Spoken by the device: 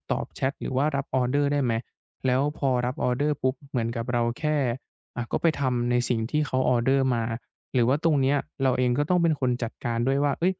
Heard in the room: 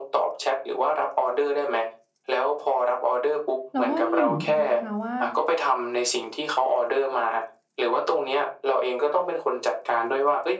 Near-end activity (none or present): present